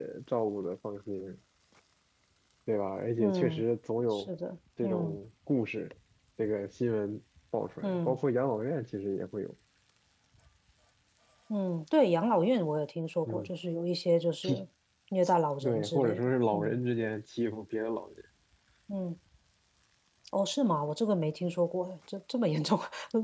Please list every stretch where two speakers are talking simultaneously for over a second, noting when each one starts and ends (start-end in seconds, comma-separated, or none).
15.6-16.8